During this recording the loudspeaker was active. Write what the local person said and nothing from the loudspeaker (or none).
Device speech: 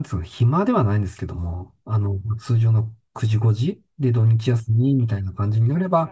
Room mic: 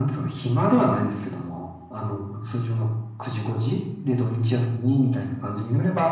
none